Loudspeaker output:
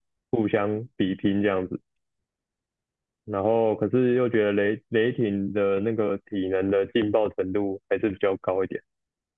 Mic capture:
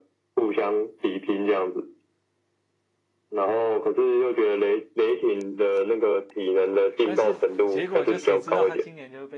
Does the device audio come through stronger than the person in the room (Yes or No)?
Yes